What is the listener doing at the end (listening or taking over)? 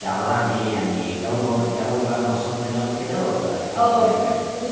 taking over